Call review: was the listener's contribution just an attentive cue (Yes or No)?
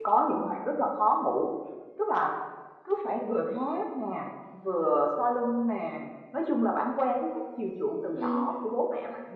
Yes